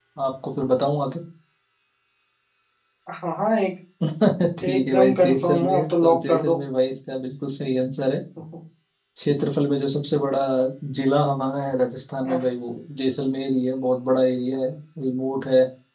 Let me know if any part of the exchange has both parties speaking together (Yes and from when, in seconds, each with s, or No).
Yes, from 4.6 s